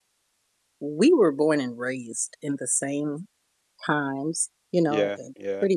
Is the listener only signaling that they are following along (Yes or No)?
Yes